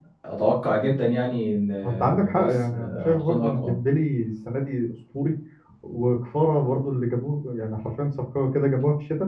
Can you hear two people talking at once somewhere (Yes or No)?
Yes